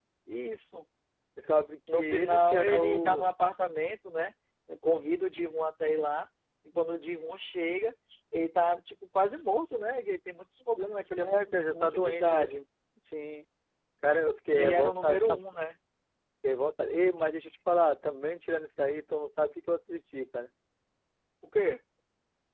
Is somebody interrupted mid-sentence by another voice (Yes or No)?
Yes